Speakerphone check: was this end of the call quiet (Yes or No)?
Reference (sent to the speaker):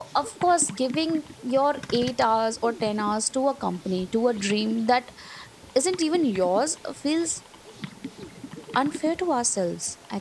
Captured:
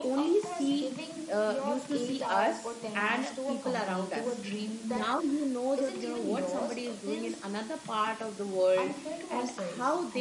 No